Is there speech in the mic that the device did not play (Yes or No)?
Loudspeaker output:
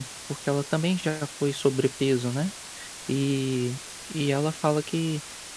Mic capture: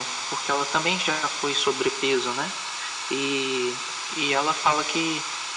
No